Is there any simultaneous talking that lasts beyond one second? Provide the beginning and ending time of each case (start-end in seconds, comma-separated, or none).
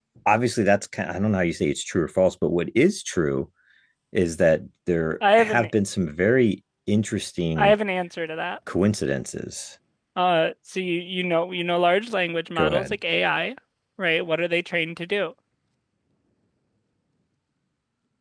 none